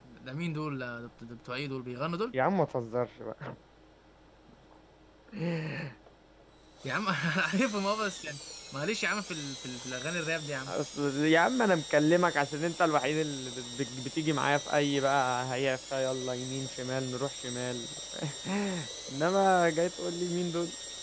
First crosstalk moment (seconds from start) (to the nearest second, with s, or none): none